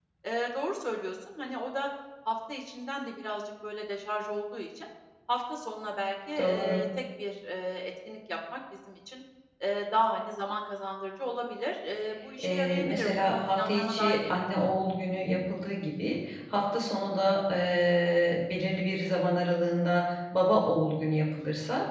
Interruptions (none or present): present